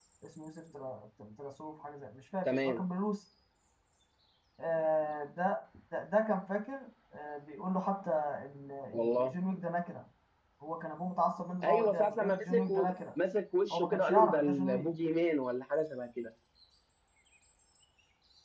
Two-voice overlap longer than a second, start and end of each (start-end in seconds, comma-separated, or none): 11.6-12.9, 13.7-14.9